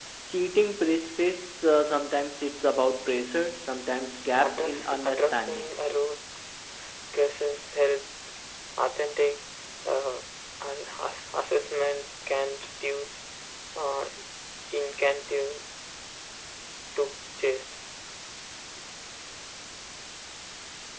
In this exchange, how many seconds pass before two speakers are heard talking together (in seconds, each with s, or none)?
4.4 s